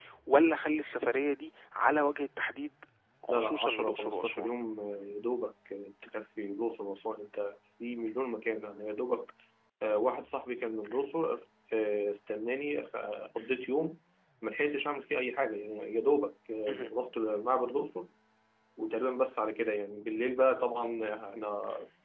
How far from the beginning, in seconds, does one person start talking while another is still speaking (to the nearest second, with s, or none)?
3 s